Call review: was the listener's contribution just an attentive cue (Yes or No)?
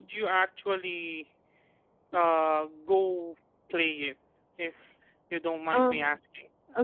No